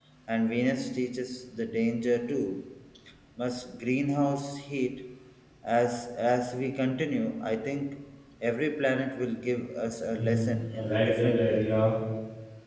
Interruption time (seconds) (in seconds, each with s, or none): 10.2 s